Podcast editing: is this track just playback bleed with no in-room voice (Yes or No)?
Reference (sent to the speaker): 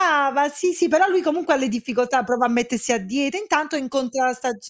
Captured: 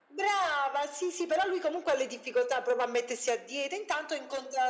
Yes